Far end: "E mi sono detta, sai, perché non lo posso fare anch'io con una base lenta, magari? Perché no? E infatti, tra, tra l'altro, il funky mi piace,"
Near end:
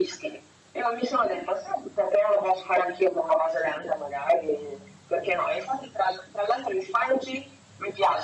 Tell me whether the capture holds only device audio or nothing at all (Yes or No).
Yes